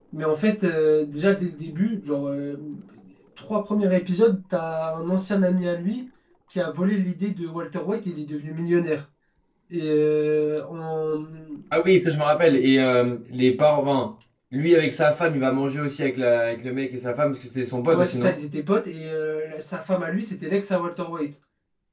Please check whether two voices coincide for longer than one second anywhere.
No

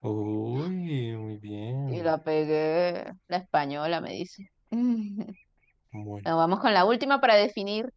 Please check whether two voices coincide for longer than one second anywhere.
No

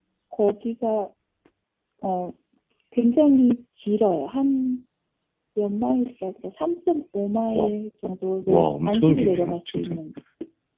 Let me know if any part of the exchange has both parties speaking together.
Yes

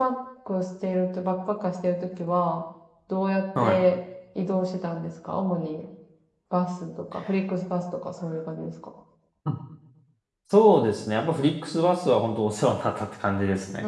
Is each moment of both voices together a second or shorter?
Yes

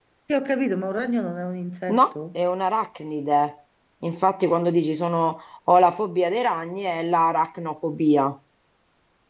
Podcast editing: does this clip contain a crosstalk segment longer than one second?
No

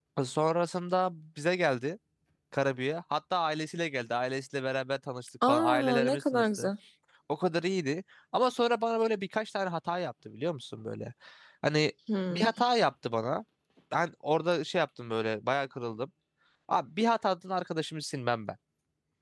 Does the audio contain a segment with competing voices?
Yes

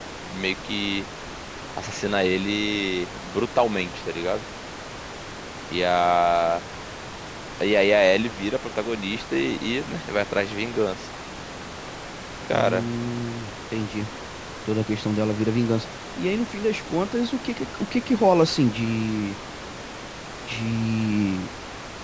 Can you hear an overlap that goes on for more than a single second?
No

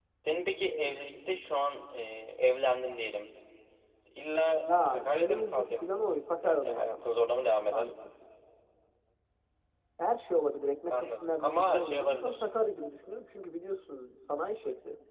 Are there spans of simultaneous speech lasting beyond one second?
Yes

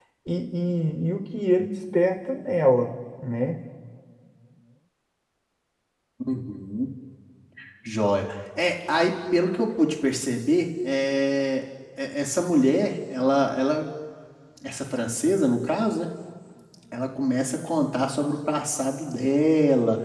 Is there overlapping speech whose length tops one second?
No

